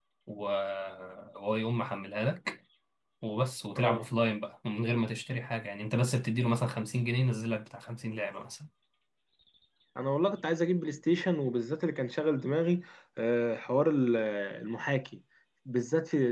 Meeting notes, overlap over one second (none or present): none